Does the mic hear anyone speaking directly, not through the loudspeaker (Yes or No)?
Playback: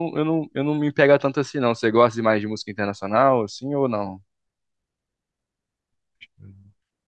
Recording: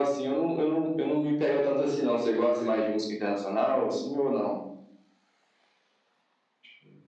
No